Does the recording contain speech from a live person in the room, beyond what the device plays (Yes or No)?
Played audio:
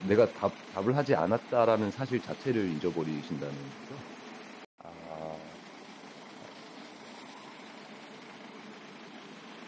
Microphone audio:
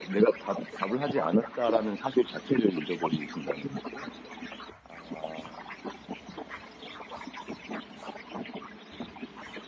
No